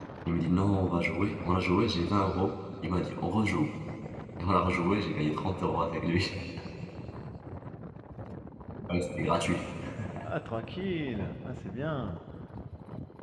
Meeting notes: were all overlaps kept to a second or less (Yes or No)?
Yes